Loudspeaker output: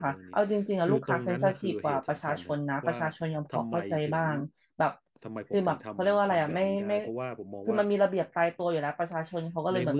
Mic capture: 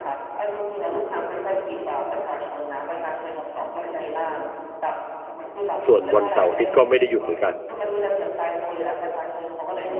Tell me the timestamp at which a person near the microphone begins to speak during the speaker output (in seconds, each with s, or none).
5.9 s